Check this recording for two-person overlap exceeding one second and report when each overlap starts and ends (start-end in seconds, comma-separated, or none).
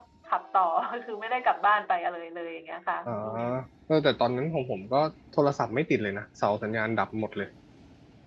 none